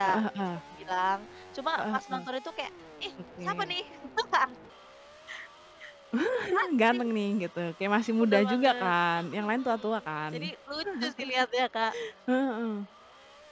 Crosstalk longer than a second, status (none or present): present